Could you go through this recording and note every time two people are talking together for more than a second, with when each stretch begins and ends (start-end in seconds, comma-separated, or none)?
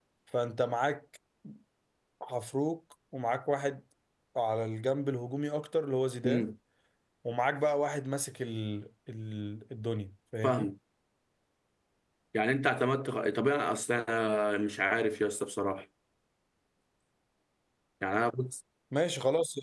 none